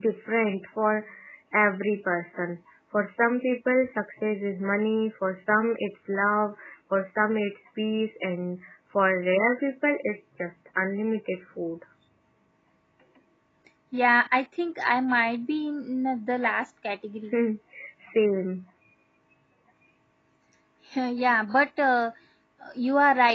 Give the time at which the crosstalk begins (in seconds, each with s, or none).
none